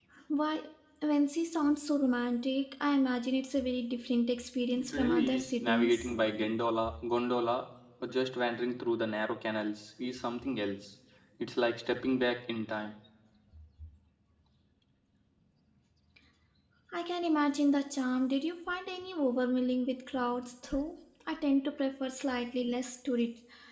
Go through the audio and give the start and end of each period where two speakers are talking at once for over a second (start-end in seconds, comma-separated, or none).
4.7-6.1